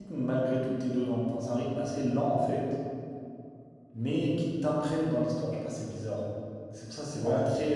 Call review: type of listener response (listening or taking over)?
listening